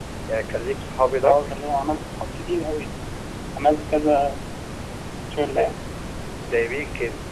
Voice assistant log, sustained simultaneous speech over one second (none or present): none